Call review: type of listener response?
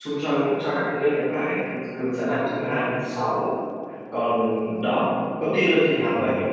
listening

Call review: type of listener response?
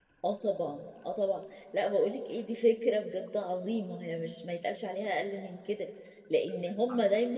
listening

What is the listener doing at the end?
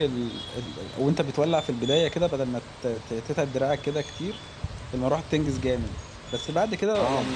listening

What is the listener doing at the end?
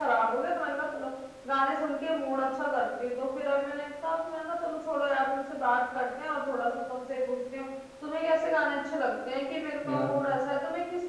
listening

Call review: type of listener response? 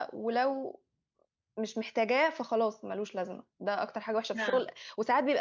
listening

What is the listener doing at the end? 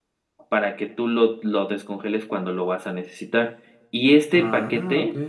listening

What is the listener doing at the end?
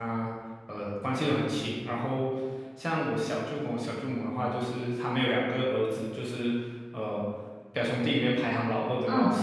listening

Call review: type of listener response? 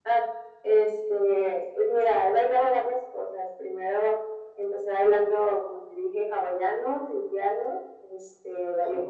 listening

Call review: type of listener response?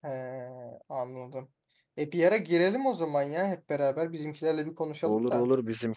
taking over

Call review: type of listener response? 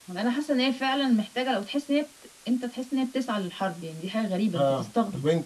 taking over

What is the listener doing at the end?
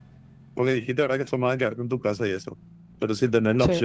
listening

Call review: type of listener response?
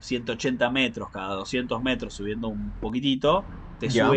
listening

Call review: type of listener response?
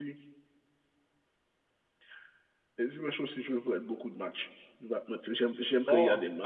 taking over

